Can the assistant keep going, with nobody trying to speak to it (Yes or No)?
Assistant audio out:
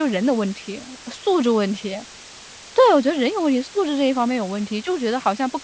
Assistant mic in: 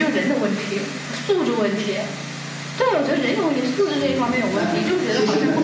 No